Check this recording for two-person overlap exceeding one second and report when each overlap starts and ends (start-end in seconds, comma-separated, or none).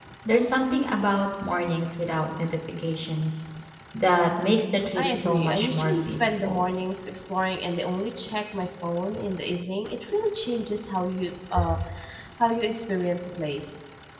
5.0-6.6